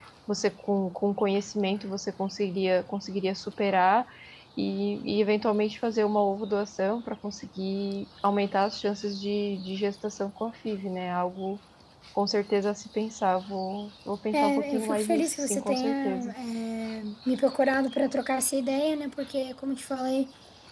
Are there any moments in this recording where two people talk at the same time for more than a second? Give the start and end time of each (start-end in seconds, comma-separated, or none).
14.3-16.3